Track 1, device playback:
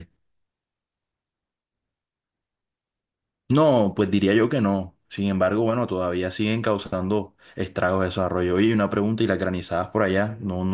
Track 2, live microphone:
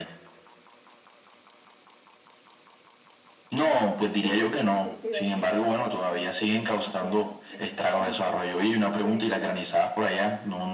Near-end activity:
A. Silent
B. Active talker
B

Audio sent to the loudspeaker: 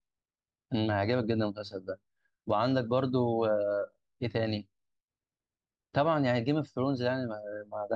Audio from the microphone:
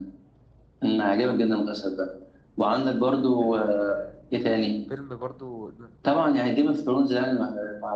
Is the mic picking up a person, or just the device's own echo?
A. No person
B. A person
B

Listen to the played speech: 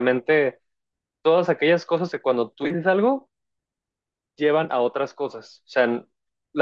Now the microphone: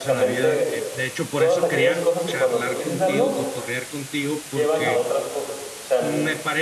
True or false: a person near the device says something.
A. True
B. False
A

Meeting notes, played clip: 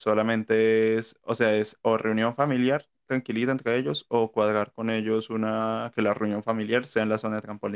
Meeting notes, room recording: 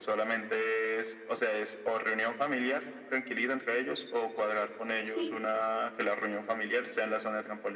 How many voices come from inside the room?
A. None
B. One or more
B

